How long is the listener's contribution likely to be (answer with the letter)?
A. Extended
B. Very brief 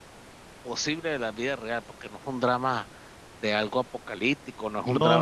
A